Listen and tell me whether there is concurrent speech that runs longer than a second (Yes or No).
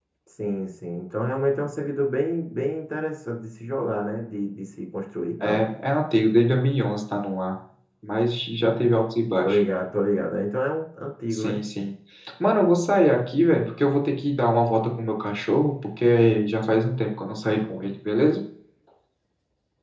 No